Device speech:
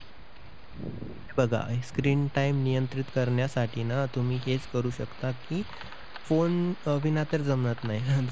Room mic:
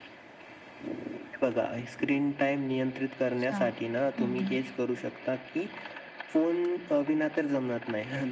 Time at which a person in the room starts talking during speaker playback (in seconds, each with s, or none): 3.4 s